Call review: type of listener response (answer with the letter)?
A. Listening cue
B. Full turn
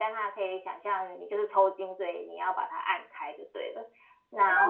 B